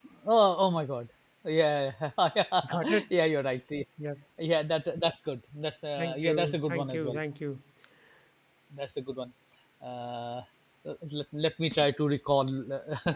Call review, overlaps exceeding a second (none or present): present